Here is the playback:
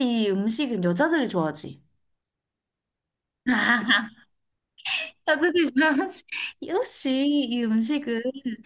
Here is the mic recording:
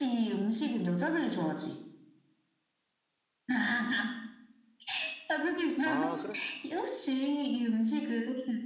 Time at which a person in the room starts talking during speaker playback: 5.8 s

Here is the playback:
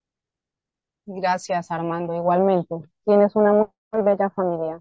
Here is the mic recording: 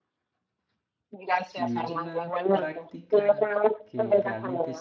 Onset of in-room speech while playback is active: 1.5 s

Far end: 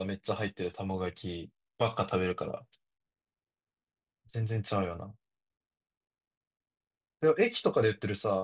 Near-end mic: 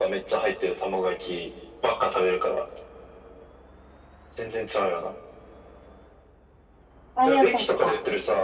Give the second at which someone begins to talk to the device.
7.1 s

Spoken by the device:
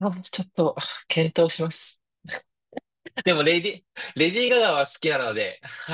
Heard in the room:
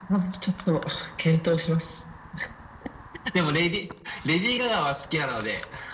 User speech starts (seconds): none

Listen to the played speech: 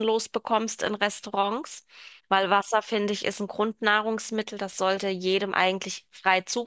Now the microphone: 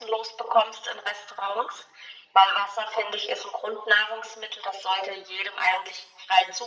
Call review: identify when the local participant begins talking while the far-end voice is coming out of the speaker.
none

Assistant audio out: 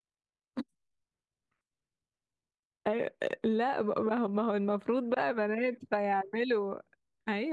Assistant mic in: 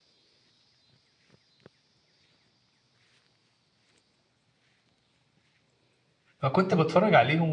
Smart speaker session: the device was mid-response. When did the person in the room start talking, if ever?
6.4 s

